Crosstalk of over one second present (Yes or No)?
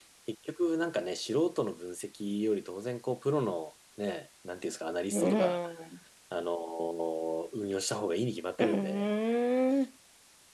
No